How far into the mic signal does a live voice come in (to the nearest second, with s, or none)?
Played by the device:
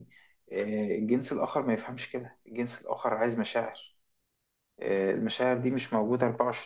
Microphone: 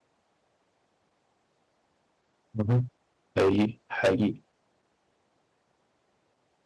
3 s